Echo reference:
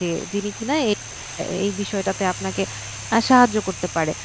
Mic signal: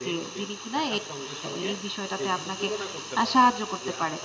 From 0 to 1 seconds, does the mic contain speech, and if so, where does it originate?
both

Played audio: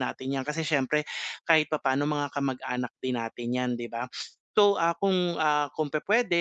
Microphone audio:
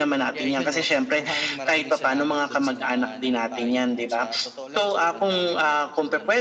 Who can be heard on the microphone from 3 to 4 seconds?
both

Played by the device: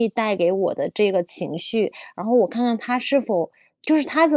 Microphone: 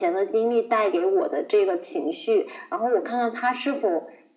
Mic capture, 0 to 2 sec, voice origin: echo only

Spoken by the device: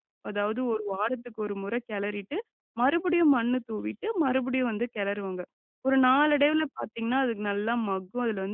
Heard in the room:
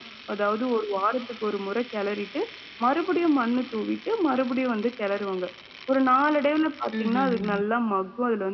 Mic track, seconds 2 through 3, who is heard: echo only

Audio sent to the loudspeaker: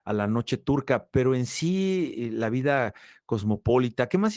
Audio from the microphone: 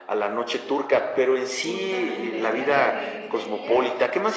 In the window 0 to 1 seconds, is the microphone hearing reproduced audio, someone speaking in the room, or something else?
echo only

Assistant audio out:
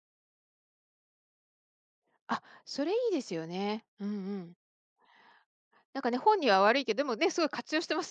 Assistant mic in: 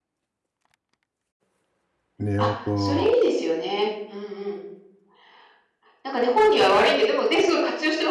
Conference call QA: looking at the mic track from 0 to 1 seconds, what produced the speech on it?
neither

